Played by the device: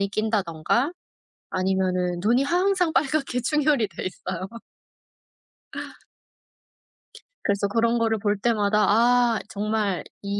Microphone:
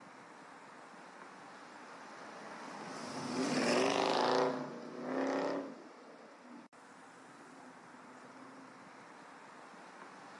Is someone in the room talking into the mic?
No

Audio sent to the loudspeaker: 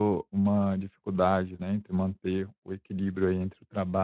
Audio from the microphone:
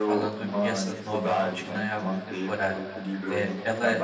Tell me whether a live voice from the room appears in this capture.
Yes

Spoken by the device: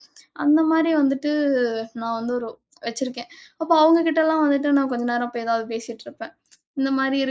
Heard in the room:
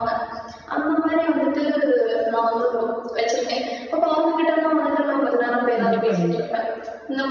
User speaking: Yes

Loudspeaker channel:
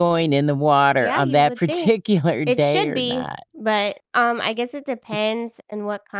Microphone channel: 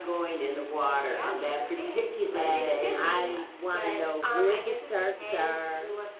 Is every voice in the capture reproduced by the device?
No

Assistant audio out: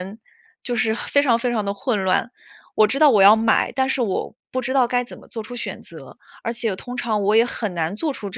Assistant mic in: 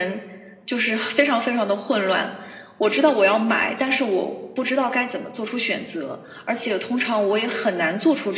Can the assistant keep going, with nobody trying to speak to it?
Yes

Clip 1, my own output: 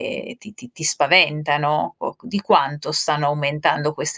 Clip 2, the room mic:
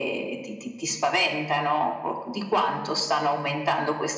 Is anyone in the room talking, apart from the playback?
No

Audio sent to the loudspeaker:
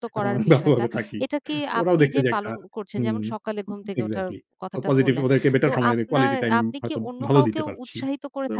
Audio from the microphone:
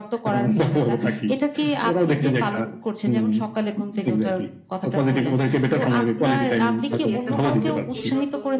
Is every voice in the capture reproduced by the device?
No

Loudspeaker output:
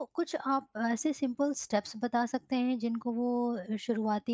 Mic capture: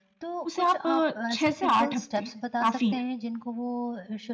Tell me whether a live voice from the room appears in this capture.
Yes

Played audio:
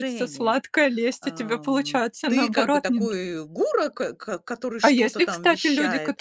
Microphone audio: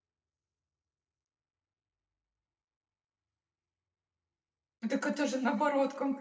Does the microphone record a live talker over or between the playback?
Yes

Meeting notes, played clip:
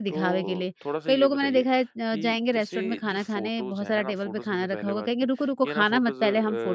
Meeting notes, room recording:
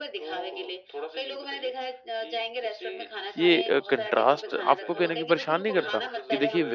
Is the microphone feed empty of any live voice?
No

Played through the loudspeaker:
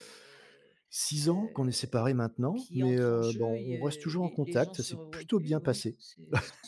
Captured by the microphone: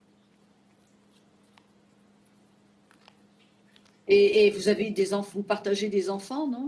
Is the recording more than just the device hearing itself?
Yes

